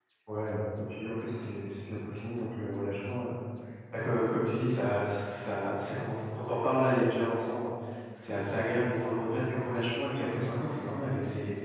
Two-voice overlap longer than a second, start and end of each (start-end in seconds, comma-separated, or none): none